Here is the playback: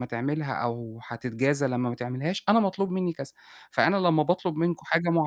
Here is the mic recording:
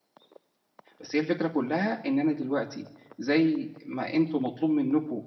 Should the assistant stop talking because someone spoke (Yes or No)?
Yes